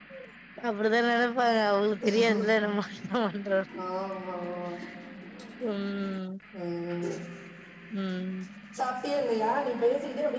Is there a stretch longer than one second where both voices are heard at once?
No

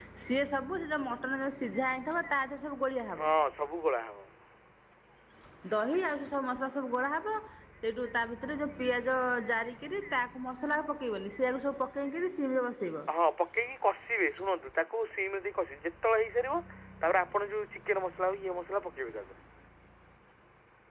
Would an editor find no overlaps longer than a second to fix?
Yes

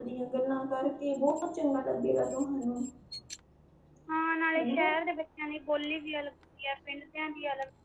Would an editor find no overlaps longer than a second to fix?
Yes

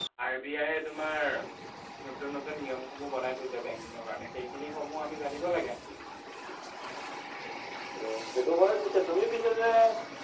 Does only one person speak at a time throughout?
Yes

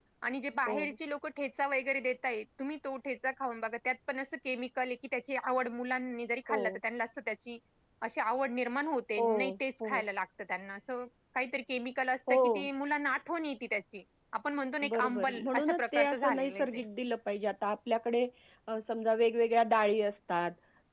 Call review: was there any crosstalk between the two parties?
Yes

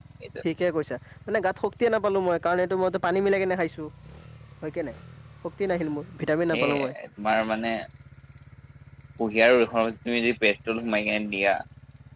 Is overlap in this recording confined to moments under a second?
Yes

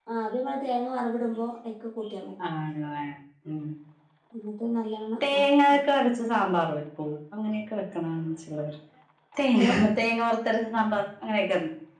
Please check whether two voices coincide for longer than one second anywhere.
No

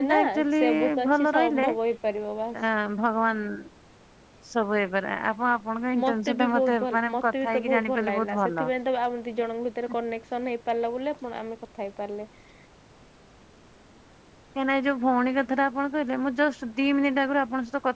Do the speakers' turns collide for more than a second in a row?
Yes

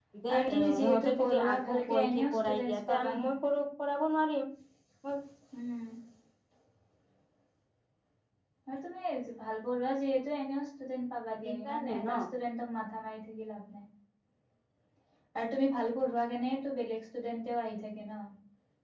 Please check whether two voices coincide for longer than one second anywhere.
Yes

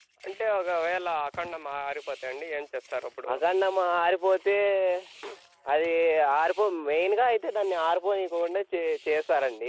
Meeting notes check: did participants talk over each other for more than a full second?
No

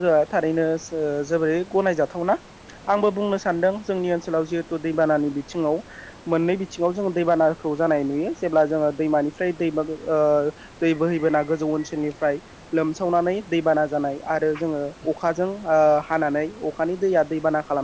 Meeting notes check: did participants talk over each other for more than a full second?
No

